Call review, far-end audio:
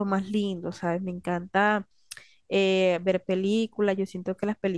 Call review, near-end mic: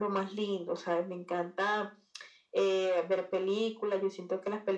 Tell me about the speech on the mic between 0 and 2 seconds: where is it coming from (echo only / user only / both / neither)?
echo only